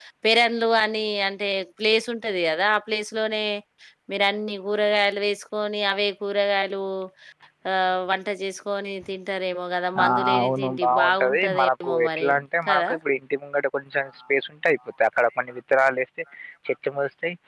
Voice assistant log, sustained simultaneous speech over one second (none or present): present